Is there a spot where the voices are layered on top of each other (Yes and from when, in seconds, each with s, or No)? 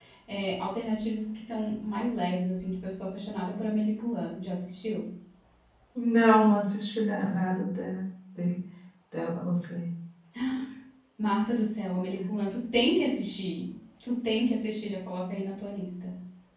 No